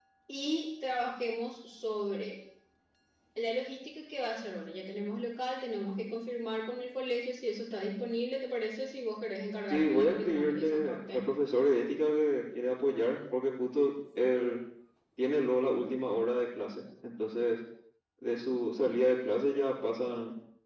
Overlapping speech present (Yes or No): Yes